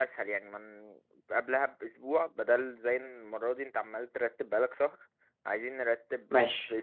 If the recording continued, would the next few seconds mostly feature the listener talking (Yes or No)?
Yes